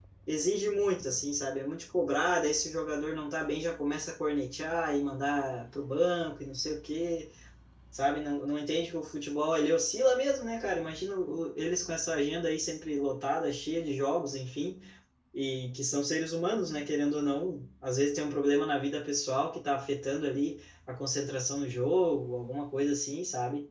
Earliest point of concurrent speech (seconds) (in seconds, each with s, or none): none